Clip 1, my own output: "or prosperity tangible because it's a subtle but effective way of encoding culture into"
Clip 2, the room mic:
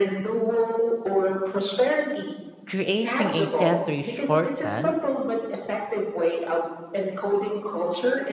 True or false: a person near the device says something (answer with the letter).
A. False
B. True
B